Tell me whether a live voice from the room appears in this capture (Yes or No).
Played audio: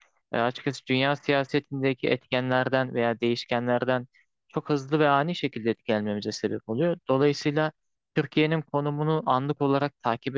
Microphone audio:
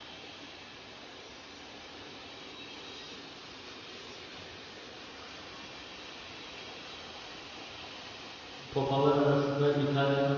Yes